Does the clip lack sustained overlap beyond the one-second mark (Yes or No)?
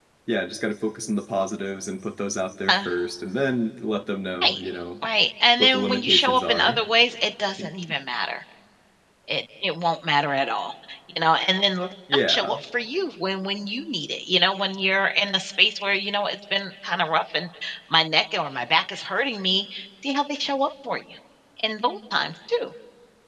No